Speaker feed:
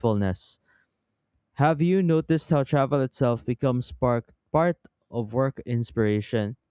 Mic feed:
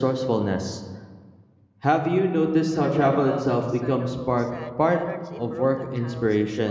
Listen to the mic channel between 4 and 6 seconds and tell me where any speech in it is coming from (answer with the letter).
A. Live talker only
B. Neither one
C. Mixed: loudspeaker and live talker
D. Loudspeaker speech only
C